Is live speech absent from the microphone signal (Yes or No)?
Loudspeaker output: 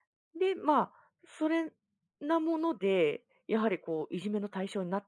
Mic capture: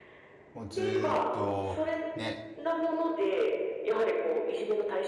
No